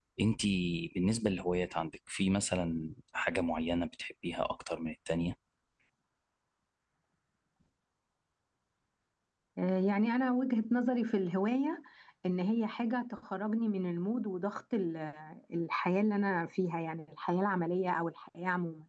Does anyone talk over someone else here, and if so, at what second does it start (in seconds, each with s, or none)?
none